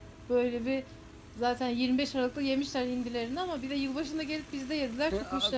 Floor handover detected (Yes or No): Yes